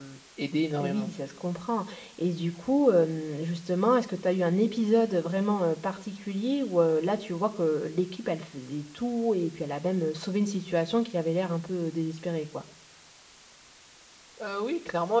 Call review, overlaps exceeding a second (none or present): none